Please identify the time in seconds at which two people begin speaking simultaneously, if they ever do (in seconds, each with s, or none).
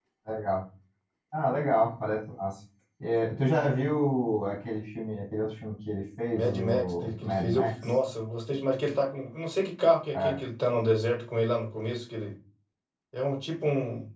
6.3 s